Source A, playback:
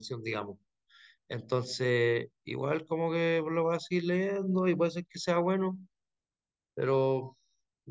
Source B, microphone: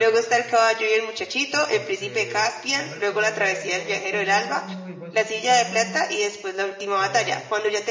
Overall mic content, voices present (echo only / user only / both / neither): both